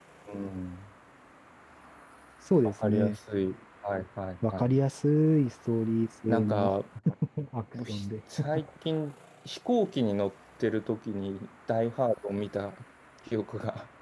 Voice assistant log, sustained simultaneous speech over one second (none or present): none